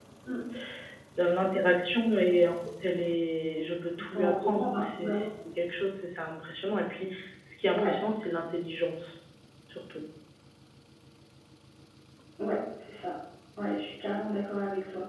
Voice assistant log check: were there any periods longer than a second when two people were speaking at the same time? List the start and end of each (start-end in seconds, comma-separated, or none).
4.0-5.3